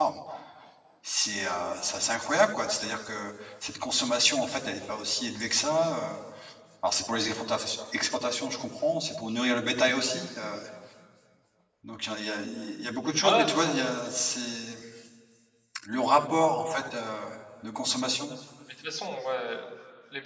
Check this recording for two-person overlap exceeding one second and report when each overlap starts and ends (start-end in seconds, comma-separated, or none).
none